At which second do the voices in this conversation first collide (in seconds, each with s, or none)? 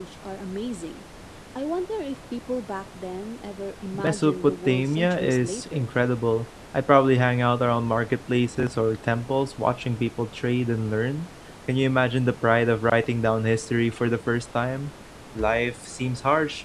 3.9 s